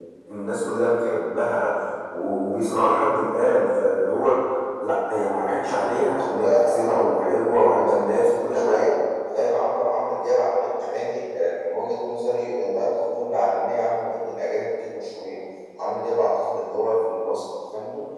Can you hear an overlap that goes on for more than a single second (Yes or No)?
Yes